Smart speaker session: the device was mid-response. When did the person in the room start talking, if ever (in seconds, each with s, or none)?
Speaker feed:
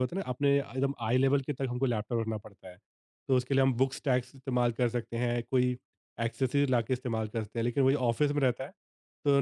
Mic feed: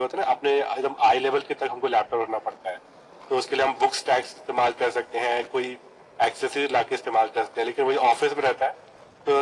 none